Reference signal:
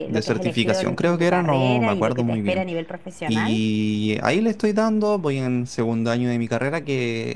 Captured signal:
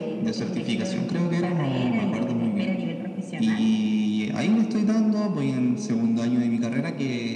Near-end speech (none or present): none